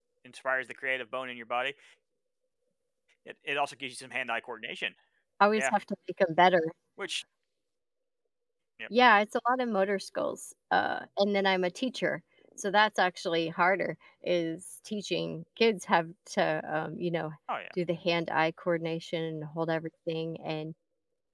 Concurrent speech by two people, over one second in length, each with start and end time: none

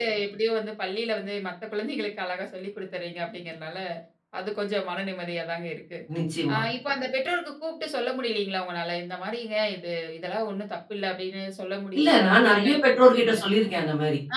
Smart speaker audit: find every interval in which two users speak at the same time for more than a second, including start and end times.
12.0-13.3

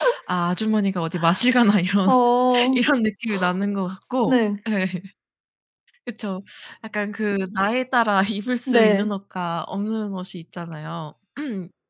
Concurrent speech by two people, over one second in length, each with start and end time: none

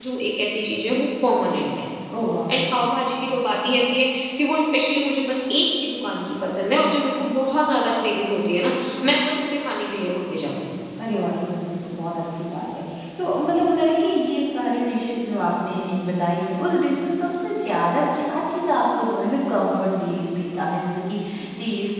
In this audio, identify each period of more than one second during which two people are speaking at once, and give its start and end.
none

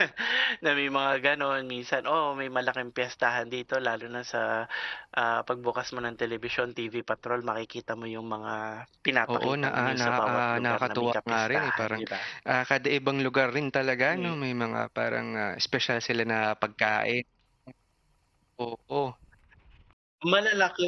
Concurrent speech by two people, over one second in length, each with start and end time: 9.3-12.0

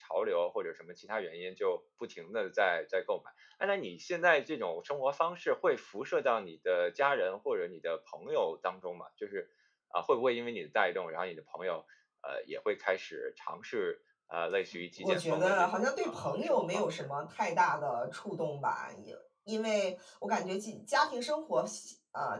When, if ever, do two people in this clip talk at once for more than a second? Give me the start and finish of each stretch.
15.0-17.1

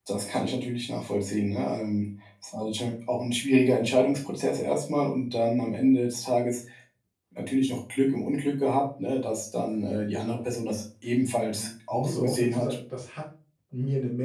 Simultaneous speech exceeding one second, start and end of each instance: 11.5-12.7

